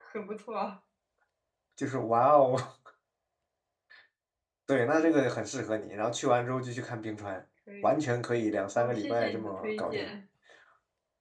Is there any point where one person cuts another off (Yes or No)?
Yes